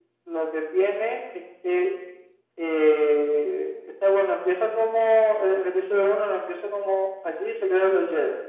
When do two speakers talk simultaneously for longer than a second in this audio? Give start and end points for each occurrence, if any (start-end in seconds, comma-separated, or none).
none